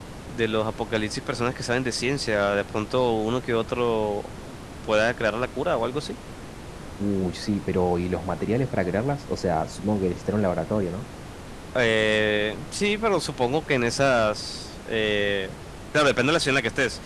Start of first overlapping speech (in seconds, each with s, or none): none